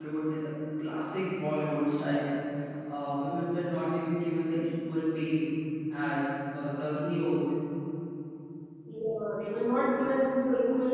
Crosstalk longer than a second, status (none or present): none